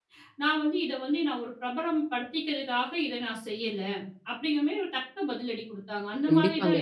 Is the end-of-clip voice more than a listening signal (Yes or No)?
Yes